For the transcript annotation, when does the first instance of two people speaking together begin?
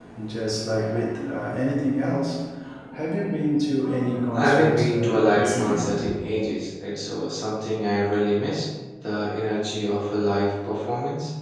4.3 s

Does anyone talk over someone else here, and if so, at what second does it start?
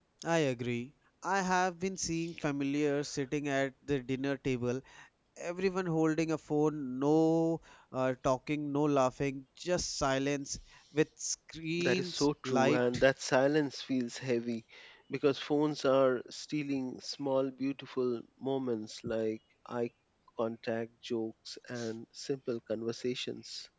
11.8 s

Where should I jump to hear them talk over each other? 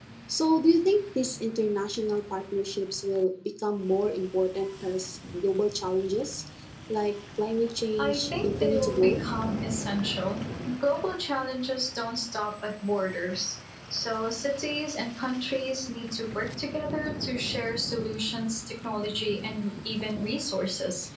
8.0 s

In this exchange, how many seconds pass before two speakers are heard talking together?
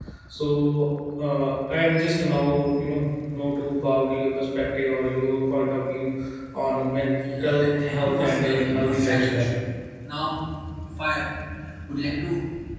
7.4 s

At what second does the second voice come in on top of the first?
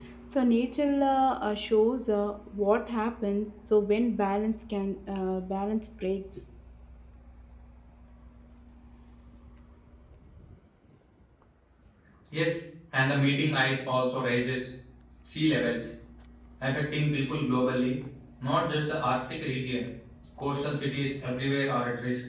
none

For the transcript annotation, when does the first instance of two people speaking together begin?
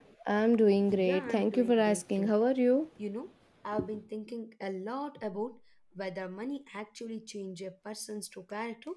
1.0 s

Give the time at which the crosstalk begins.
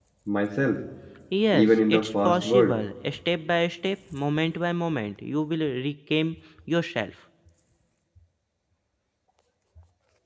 1.5 s

